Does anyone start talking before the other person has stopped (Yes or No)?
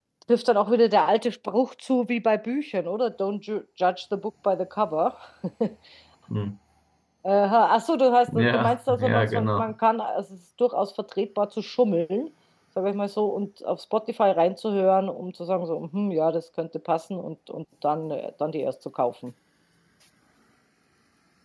Yes